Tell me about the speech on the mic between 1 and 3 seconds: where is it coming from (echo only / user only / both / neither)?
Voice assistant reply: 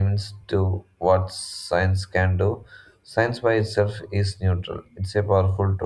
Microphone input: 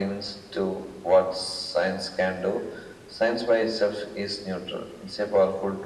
echo only